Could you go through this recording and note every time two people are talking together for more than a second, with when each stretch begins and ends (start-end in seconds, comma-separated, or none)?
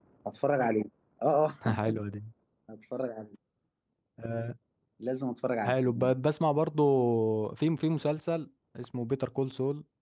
none